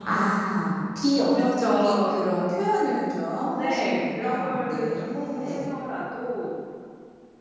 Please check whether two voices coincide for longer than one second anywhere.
Yes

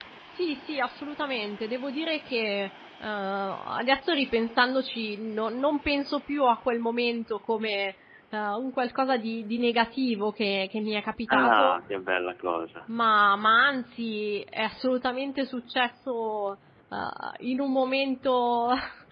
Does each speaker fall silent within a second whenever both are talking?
Yes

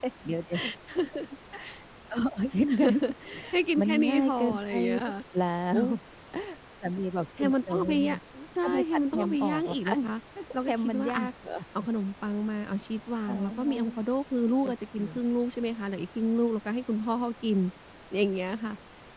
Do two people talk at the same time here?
Yes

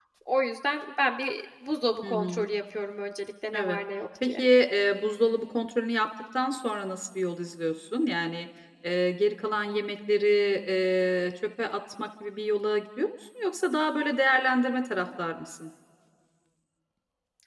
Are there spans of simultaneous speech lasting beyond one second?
No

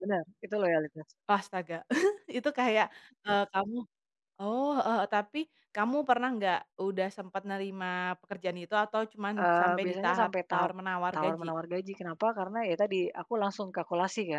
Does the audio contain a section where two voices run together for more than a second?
Yes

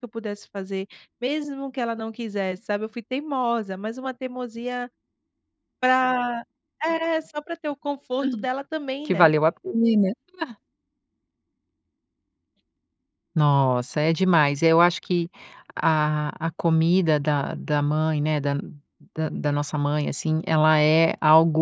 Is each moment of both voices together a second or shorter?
Yes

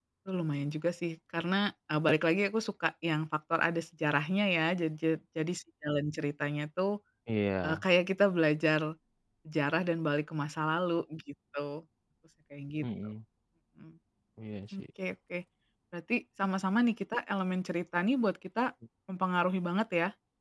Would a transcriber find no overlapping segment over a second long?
Yes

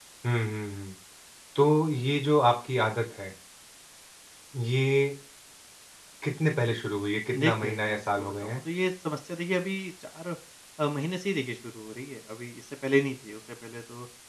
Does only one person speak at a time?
No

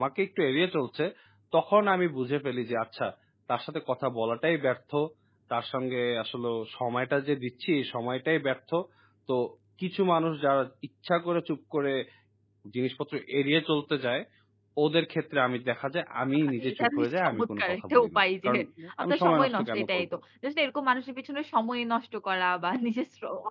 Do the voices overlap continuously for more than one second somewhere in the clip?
Yes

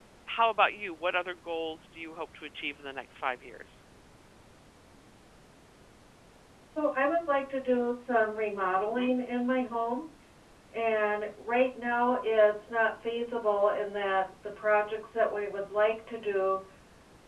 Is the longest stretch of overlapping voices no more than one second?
Yes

